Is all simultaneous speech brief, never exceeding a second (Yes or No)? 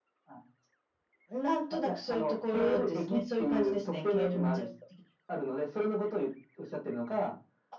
No